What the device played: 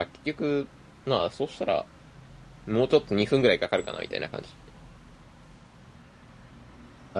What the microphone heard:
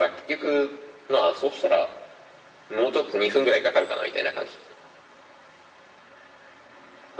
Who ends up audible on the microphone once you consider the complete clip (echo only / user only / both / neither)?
echo only